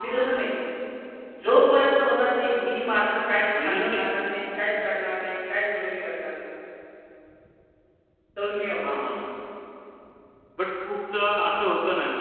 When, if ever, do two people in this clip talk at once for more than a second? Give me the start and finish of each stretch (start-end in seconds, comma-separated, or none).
none